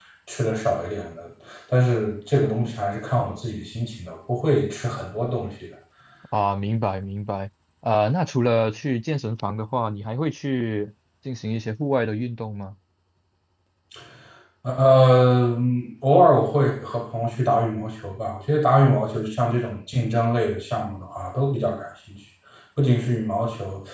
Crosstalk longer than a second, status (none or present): none